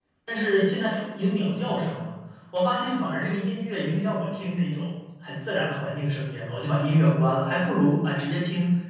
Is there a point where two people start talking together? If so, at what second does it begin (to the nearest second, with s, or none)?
none